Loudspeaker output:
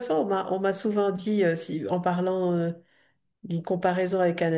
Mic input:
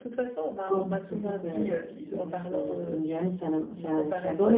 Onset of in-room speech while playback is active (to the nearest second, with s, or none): 1 s